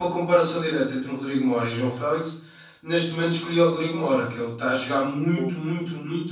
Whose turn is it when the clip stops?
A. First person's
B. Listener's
A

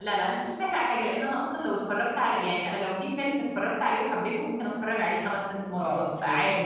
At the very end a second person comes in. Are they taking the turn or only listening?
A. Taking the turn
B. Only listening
A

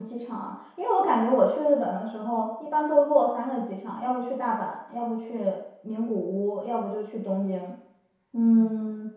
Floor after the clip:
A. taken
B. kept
A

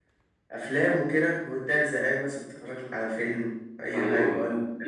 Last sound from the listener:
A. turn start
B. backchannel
A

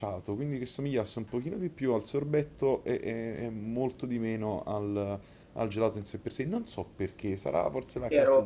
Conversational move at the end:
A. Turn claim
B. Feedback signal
A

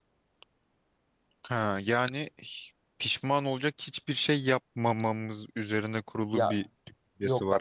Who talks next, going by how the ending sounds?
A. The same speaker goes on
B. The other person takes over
B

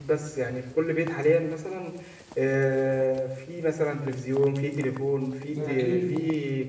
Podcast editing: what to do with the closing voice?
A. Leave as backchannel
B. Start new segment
A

